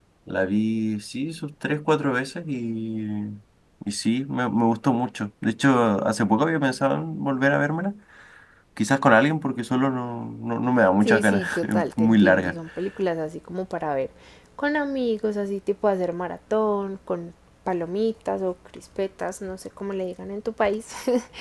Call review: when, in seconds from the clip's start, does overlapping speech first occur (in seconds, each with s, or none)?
11.0 s